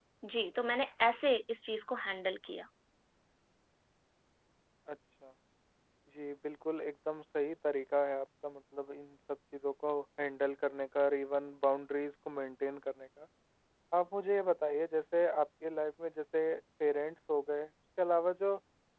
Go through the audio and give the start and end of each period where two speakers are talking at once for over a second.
none

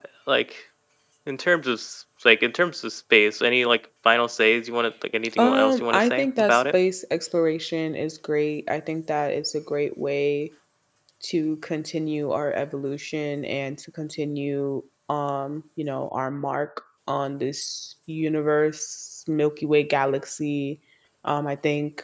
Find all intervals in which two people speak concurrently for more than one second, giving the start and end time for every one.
5.4-6.8

